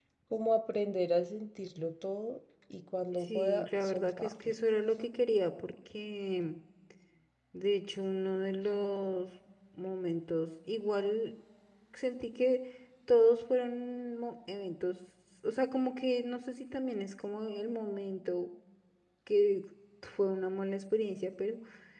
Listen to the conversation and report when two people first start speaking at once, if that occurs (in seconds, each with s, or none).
3.2 s